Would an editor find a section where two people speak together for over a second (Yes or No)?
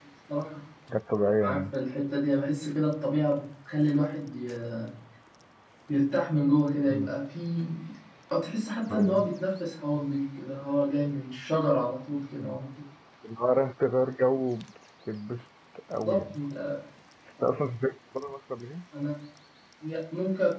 No